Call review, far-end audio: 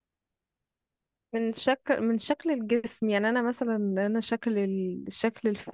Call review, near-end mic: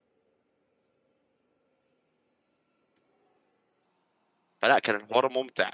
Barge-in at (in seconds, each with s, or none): 4.6 s